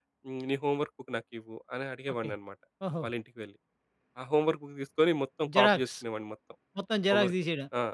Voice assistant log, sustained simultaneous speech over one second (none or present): none